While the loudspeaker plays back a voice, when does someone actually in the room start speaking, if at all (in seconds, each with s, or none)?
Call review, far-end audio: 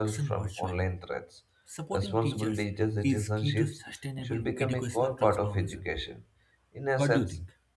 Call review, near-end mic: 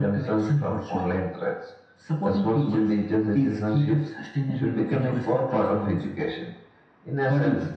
none